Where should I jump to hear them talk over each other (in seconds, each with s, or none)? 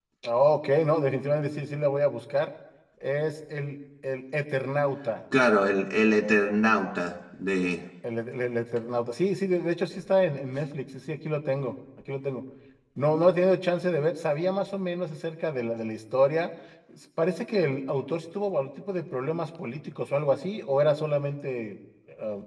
none